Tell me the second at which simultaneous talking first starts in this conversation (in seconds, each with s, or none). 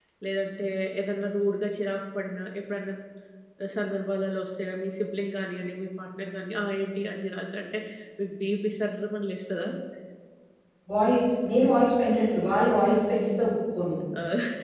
none